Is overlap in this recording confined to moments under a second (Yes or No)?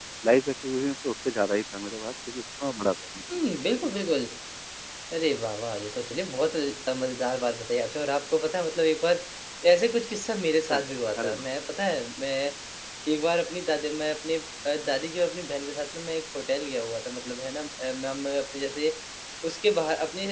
Yes